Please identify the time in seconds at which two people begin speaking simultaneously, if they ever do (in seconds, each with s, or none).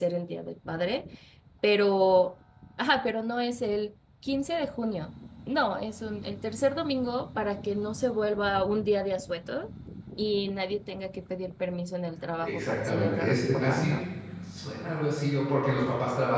12.4 s